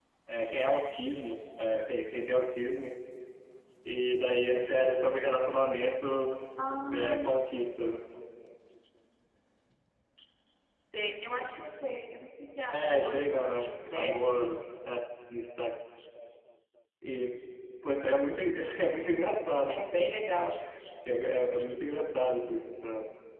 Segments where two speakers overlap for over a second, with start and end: 12.7-14.5

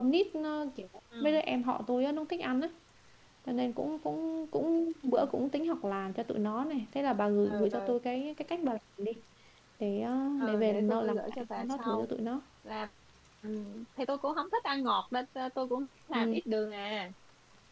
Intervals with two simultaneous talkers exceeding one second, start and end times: 10.4-12.1

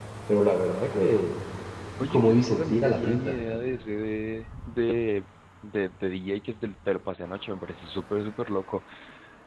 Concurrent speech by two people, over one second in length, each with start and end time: 2.0-3.4

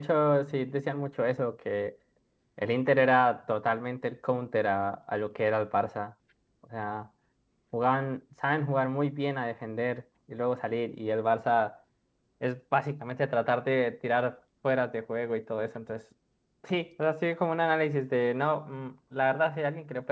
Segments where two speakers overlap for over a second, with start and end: none

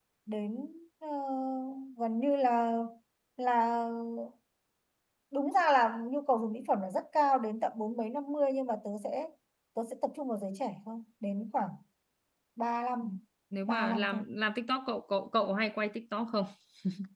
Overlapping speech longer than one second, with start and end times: none

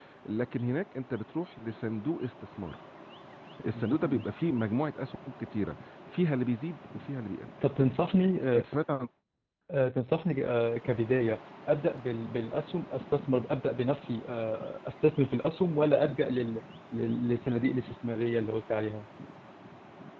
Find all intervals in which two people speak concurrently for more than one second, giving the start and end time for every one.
none

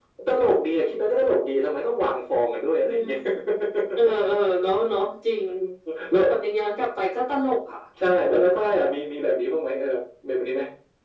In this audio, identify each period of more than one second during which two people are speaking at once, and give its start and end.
none

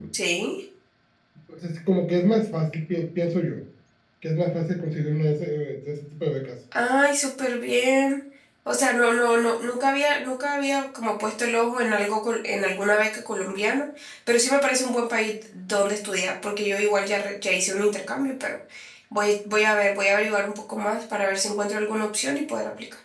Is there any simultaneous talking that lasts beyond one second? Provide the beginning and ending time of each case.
none

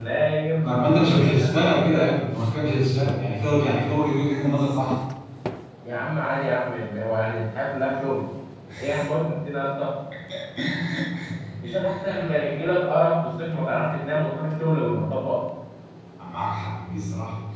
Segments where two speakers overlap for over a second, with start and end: 0.6-2.0

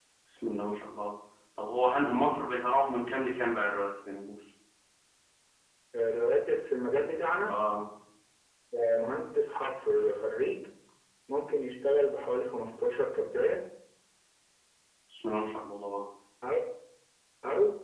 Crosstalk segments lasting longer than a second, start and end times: none

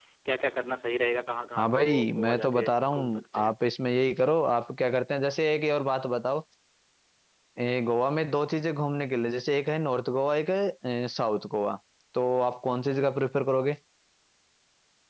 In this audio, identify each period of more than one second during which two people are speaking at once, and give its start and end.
1.6-3.5

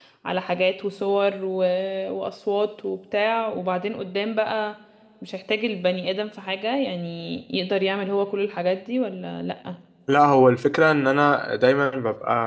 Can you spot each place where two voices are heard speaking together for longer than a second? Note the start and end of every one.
none

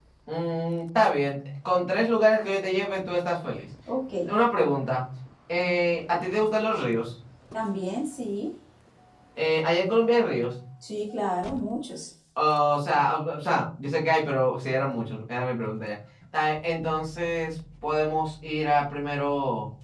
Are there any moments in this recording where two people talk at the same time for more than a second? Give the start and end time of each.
none

